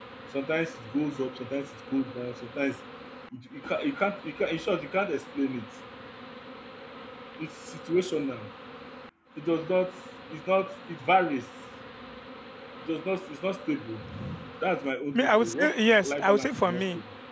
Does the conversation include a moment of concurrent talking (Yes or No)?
Yes